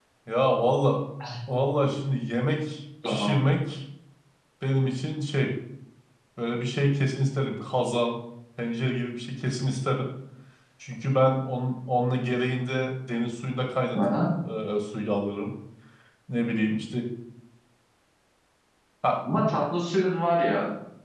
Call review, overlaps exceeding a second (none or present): none